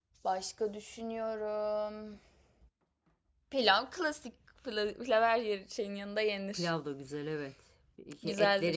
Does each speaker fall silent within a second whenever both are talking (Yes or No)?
Yes